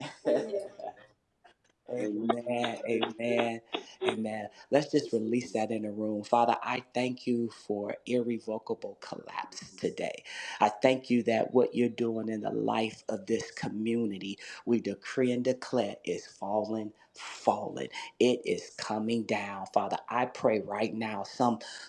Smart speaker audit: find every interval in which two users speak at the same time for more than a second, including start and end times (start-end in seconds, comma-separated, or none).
2.0-3.5